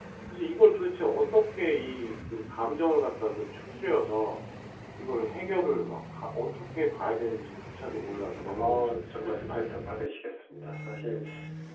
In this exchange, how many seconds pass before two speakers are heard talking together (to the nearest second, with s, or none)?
8 s